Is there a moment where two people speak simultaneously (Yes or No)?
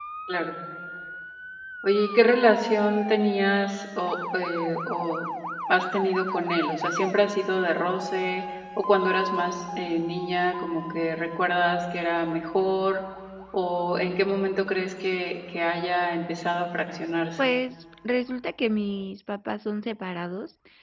No